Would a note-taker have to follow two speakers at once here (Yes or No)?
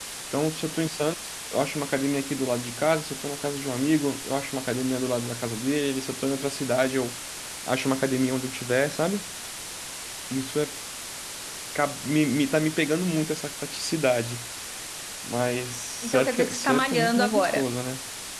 Yes